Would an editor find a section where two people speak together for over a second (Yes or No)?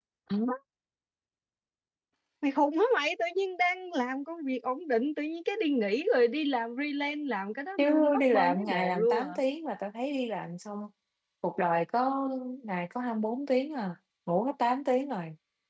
Yes